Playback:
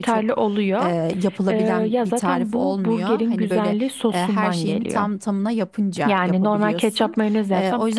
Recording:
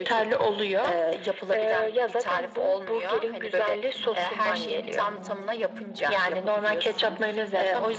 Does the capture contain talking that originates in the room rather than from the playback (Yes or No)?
Yes